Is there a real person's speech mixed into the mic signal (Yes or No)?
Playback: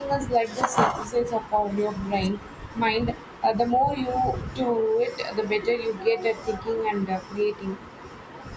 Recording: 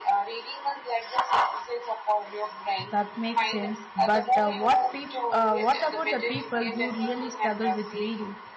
Yes